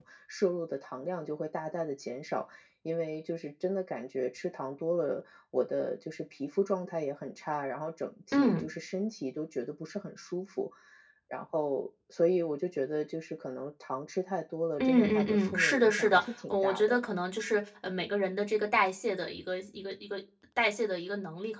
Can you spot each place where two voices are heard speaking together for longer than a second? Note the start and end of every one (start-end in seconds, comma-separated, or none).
14.8-17.0